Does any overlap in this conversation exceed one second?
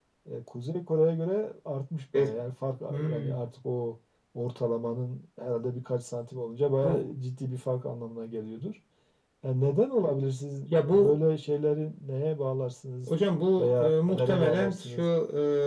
Yes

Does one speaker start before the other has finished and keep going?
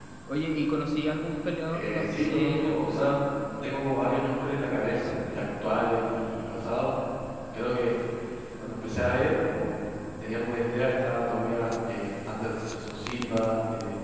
Yes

